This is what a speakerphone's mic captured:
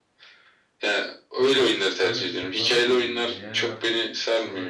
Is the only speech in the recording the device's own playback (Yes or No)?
No